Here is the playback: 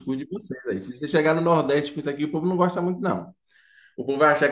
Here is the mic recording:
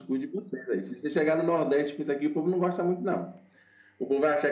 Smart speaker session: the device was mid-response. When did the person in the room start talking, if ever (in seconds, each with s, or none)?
none